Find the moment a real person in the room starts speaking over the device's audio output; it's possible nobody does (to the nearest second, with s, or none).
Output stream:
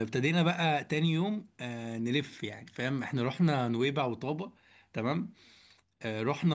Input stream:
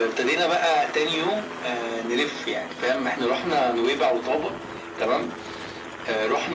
none